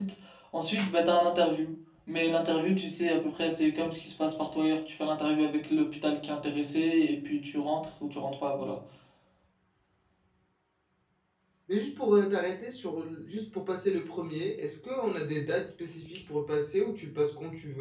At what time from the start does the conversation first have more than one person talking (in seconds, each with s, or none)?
none